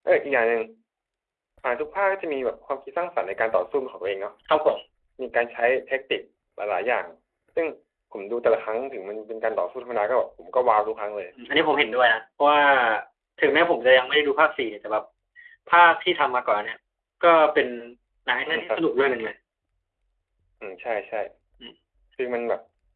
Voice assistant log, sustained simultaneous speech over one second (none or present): none